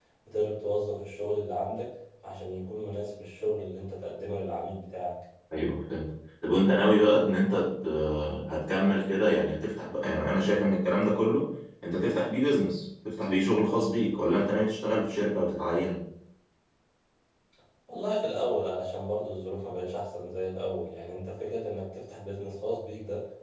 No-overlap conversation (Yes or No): Yes